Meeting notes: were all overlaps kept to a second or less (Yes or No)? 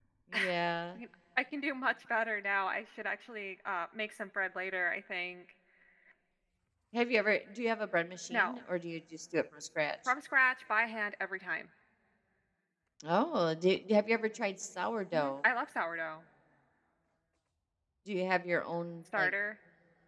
Yes